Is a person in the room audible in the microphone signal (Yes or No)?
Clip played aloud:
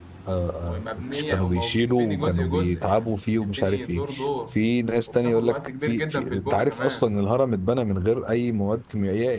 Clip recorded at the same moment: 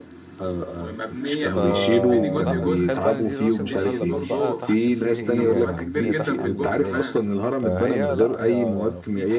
Yes